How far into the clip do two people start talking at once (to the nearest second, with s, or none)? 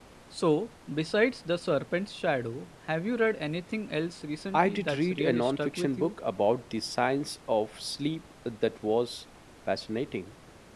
5 s